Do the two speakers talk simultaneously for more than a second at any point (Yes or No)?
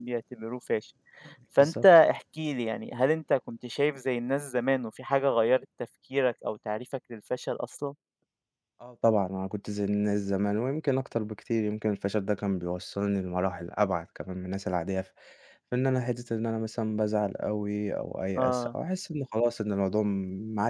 No